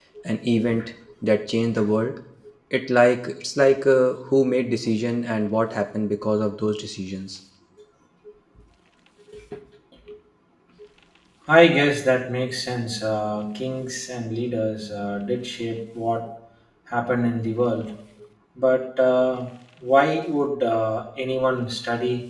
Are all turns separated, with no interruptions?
Yes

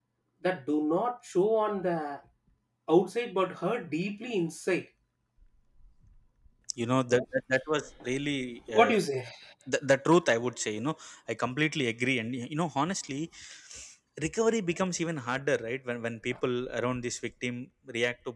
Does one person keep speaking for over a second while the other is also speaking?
No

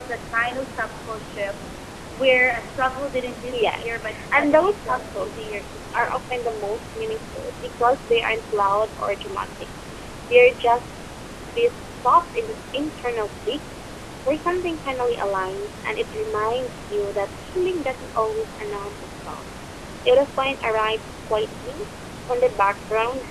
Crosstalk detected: Yes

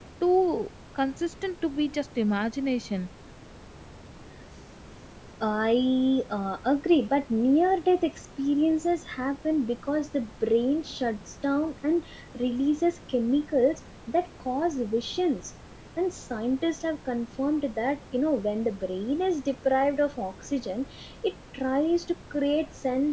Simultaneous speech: No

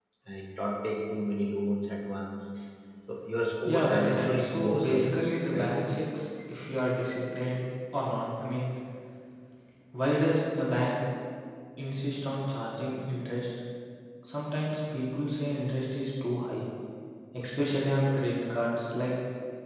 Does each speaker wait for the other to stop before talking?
No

